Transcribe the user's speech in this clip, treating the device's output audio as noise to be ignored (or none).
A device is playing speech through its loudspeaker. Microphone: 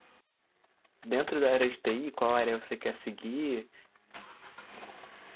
dentro da área de TI, qual área você quer seguir.